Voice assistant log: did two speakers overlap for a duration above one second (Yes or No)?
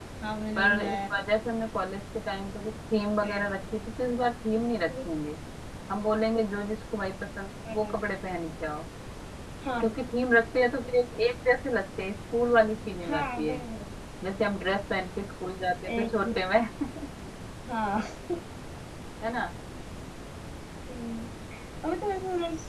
No